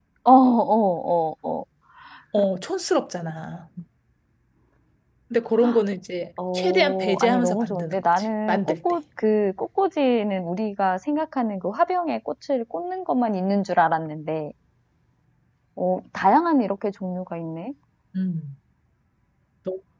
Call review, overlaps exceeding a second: present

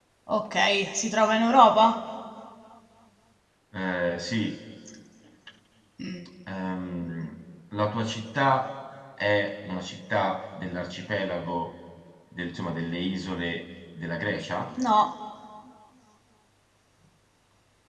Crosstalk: none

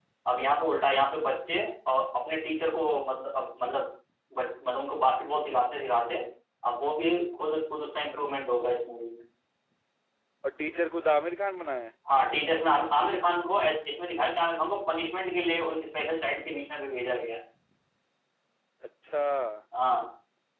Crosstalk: none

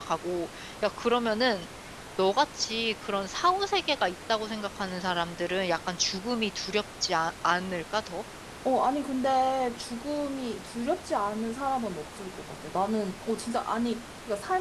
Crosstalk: none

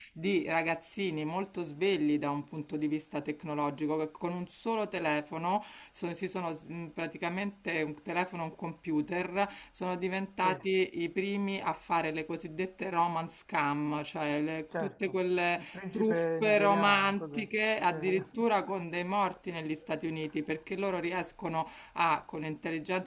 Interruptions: present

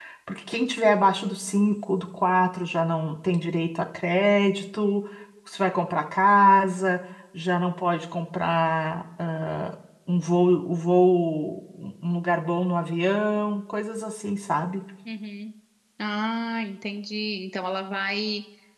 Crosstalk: none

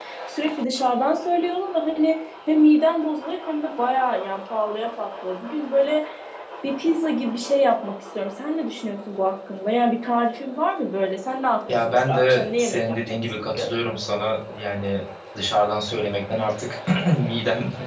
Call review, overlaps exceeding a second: present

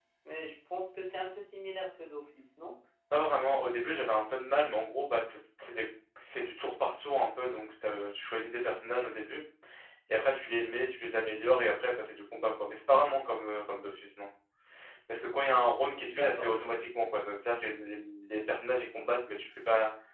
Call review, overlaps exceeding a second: none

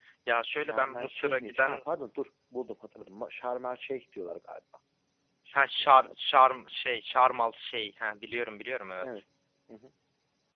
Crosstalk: present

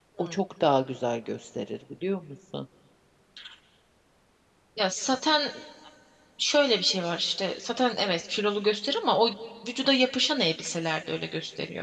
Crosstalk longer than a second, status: none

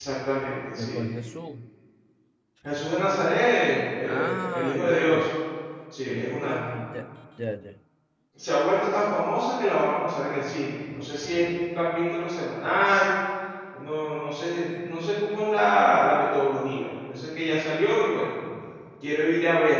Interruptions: present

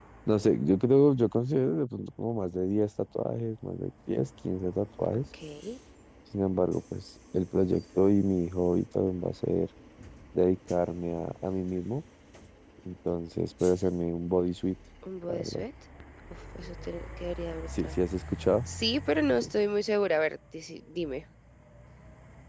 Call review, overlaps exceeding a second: none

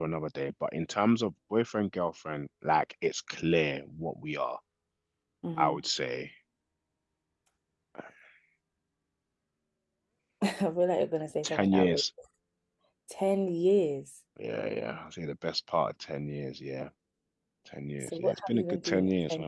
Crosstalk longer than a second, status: present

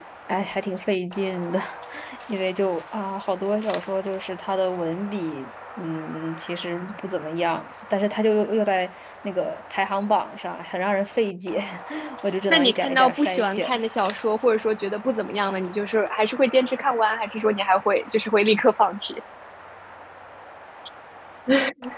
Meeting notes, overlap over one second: present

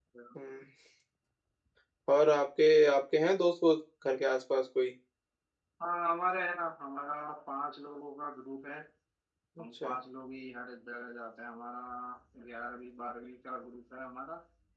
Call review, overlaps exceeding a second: none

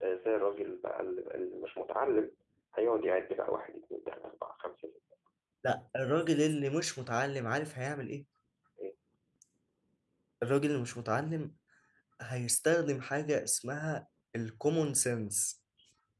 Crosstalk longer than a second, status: none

